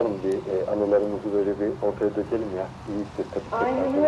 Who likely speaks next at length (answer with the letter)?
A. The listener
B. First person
A